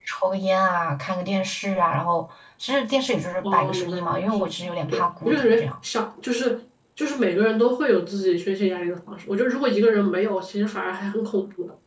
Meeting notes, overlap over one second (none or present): present